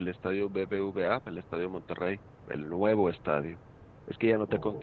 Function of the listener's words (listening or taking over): listening